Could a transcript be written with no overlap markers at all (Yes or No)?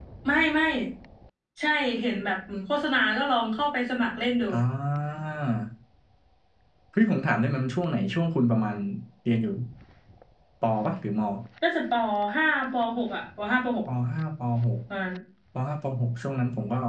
Yes